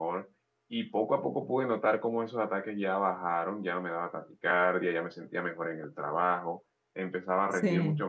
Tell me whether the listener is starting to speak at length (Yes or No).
No